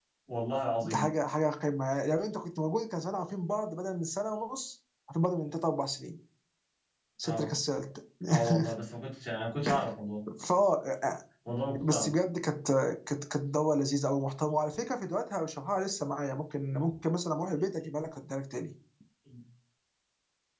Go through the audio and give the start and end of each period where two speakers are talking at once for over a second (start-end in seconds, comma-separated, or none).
none